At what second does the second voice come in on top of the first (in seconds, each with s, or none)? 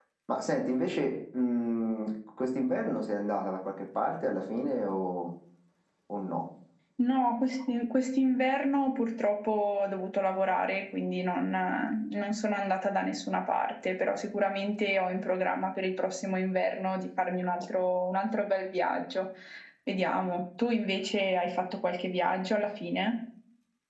none